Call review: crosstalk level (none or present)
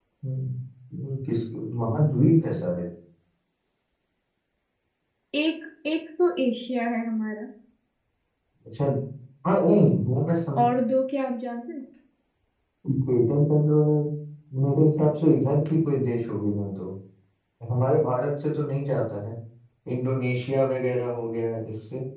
none